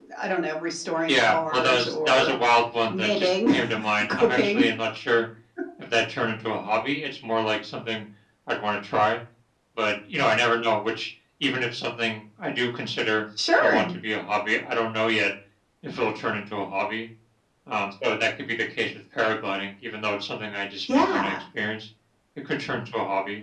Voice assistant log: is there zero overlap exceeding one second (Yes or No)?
No